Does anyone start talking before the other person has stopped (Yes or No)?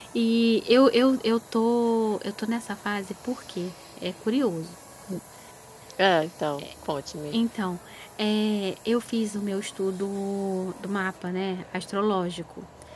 No